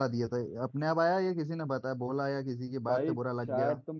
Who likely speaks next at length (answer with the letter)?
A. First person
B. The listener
B